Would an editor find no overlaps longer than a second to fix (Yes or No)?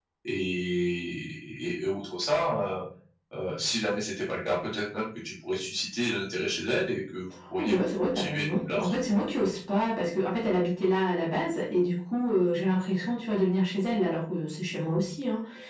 No